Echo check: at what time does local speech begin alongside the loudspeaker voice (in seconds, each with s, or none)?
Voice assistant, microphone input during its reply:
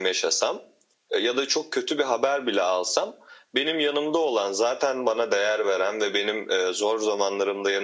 none